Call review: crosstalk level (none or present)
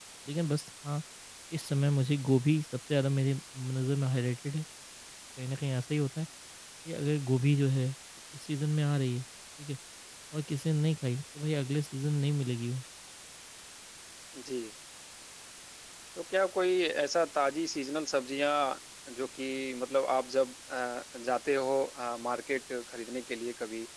none